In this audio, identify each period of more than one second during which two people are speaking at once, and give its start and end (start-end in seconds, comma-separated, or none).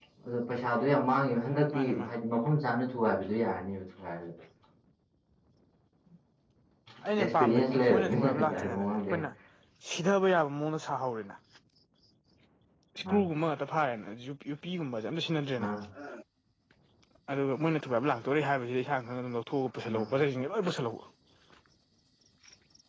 7.2-9.0